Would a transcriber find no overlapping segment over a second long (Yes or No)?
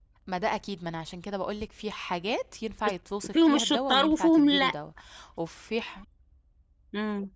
No